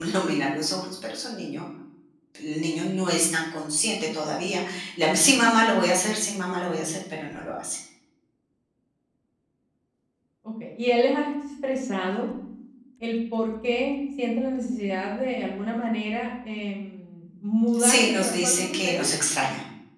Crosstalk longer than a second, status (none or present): present